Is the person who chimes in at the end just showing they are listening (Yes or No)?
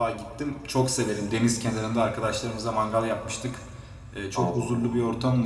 Yes